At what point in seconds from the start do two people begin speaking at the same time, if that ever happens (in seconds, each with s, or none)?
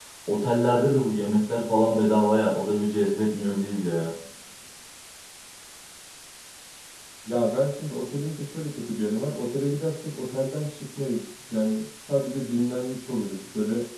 none